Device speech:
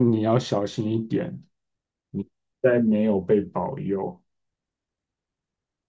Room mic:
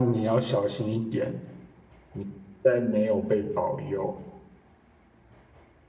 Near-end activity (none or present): none